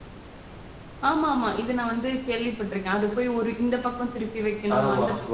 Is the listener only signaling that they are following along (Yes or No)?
No